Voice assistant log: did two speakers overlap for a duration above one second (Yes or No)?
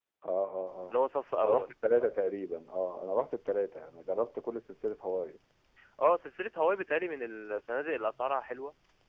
No